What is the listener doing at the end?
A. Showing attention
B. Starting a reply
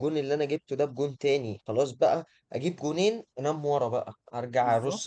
A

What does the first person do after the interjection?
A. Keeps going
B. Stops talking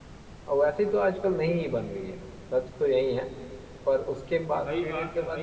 B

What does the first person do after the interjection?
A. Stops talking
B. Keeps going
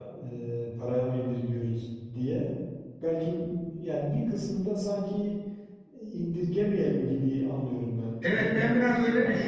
A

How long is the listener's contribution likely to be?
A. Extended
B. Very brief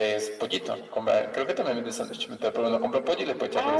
A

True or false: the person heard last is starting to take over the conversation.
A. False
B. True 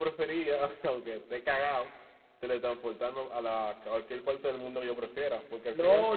B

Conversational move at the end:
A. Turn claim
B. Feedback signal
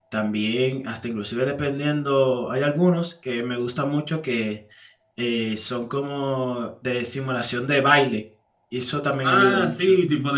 A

